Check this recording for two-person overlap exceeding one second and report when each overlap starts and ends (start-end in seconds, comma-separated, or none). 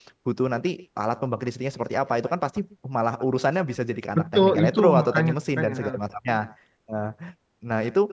4.2-5.9